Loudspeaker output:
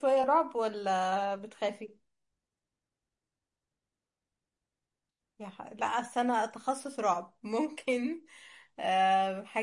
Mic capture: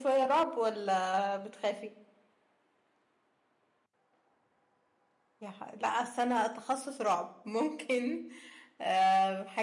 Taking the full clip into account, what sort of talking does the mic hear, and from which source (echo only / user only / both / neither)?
echo only